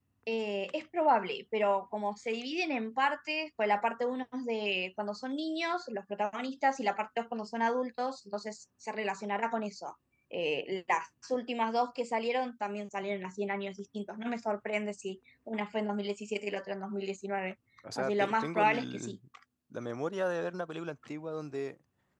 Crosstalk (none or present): present